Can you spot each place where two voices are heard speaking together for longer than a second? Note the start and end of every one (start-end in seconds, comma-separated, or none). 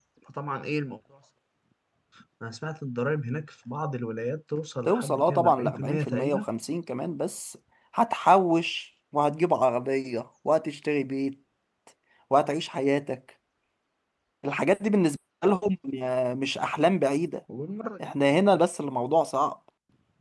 4.9-6.5